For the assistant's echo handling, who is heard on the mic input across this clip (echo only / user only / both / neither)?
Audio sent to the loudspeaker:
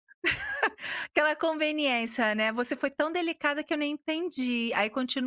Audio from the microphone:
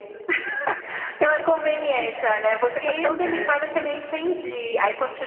both